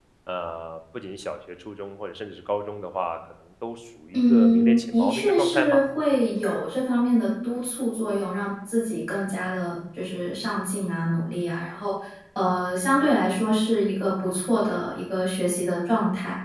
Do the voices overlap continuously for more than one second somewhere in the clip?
Yes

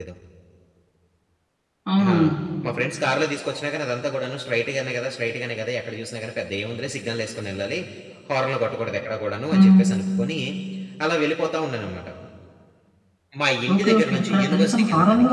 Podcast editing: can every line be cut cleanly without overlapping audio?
No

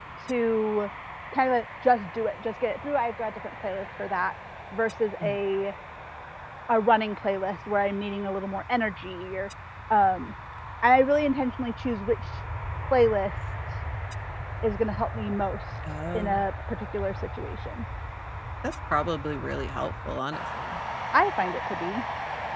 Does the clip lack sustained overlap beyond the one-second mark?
Yes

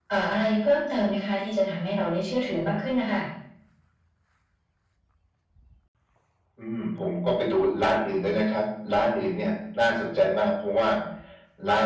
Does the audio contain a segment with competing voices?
No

